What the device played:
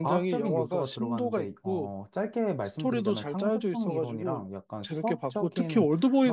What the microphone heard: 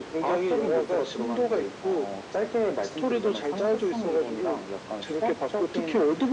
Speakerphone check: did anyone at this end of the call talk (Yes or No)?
No